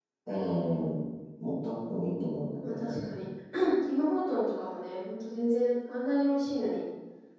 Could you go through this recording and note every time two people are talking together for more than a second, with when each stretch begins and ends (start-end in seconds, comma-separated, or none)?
none